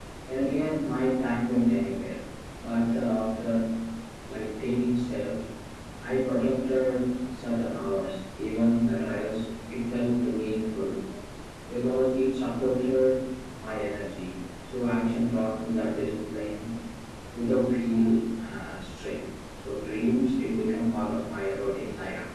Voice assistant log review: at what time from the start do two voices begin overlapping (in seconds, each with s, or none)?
none